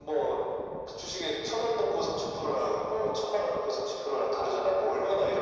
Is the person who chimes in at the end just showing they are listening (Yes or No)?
No